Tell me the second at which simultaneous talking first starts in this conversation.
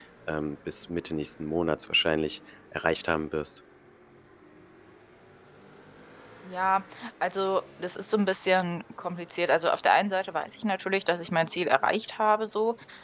none

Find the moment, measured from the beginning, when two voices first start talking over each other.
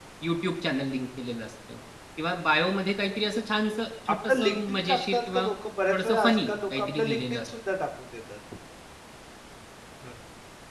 4.1 s

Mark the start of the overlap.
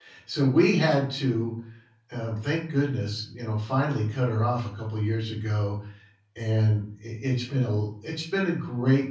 none

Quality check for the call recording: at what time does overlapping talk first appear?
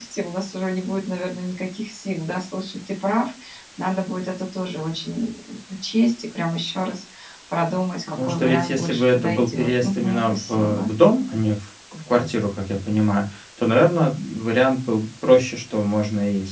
8.1 s

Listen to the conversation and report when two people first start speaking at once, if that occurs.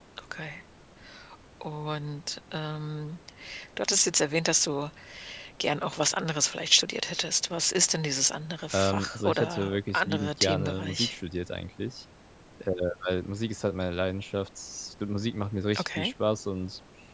8.7 s

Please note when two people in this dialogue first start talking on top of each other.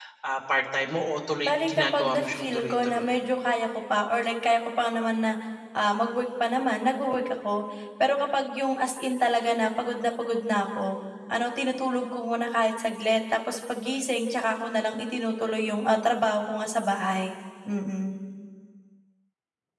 1.5 s

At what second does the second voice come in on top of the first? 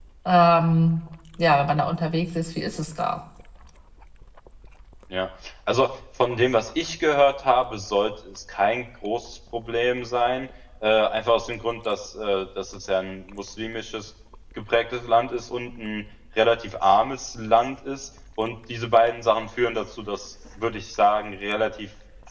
none

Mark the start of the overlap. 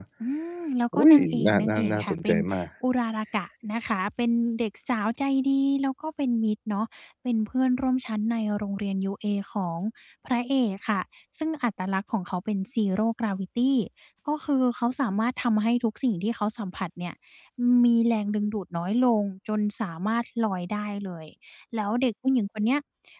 0.9 s

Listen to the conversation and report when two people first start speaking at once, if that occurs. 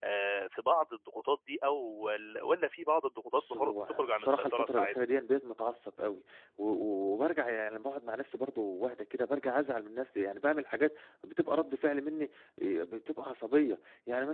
3.3 s

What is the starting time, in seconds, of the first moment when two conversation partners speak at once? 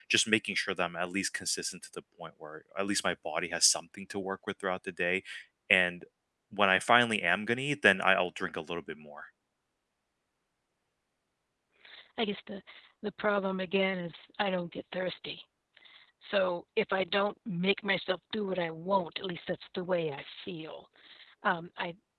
none

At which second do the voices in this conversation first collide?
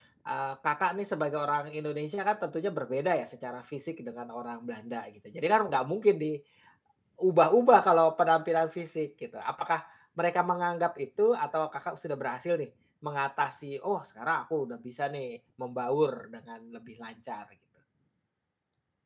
none

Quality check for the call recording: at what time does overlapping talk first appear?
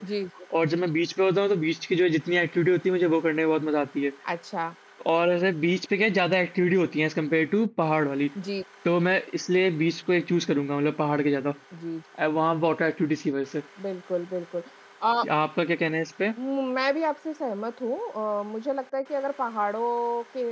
none

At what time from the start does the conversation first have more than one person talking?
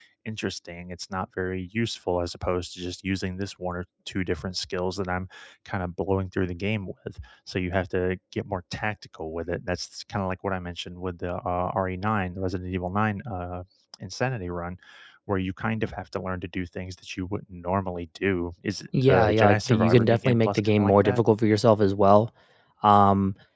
18.9 s

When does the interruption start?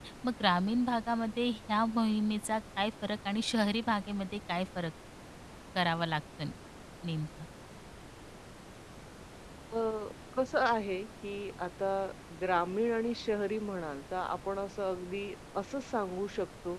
none

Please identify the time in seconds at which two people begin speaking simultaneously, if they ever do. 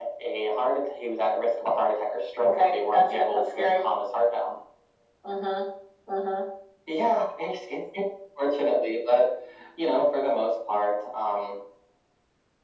2.4 s

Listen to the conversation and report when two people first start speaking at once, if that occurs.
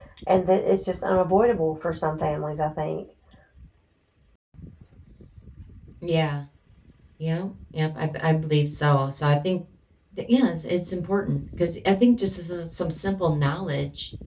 none

